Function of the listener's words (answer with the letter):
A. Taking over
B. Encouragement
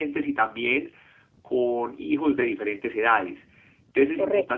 B